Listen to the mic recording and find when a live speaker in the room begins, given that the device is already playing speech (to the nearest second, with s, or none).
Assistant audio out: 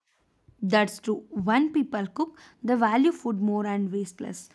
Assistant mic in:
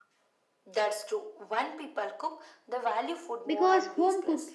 3 s